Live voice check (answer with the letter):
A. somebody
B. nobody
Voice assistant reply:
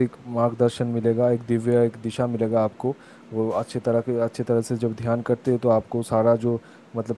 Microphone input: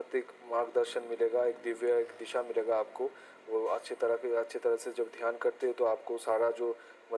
B